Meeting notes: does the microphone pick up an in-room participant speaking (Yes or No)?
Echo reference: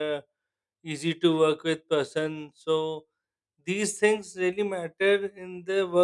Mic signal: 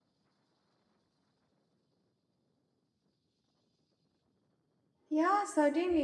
Yes